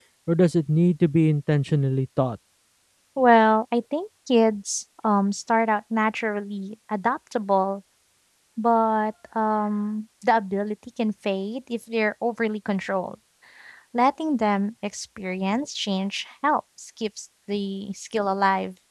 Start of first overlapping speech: none

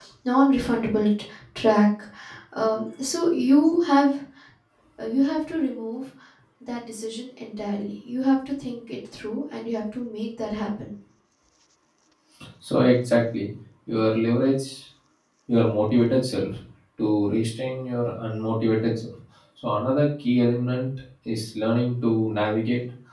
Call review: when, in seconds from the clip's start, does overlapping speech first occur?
none

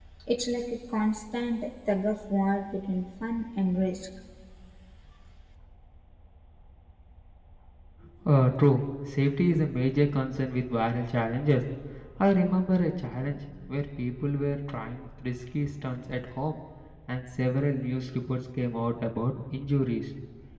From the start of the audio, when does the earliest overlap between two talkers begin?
none

